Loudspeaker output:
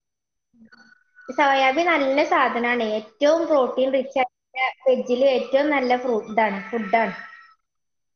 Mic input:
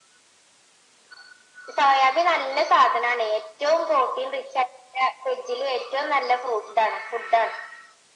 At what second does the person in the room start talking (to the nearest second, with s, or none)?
none